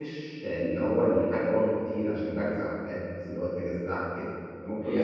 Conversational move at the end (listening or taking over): taking over